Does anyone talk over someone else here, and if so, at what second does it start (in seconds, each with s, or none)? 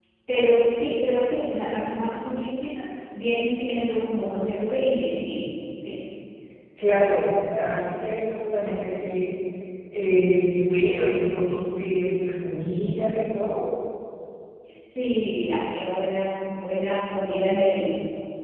none